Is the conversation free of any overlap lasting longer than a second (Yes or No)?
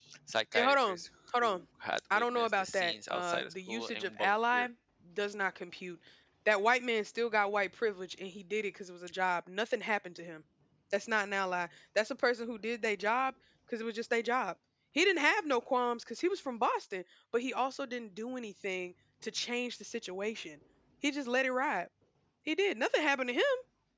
No